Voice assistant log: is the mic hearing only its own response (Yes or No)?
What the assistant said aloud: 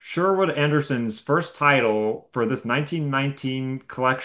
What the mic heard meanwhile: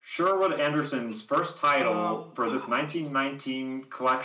No